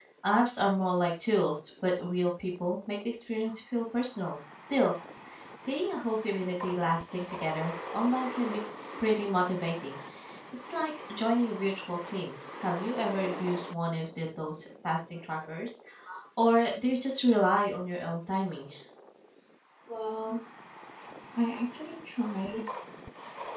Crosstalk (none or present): none